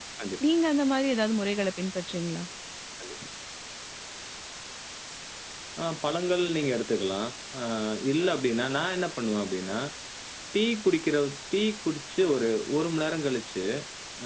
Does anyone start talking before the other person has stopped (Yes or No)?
No